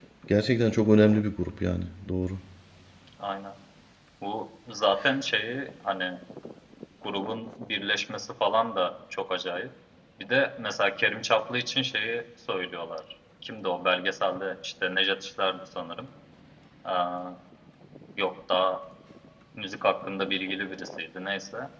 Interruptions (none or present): none